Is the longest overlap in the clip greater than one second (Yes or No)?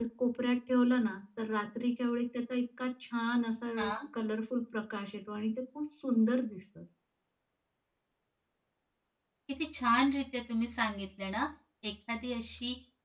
No